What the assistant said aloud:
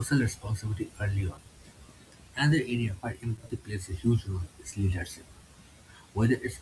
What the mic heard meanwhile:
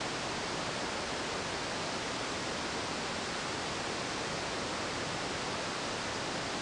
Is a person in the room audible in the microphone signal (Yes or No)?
No